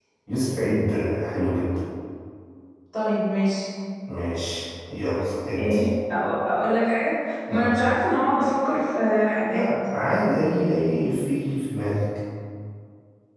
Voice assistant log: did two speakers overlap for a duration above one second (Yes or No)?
No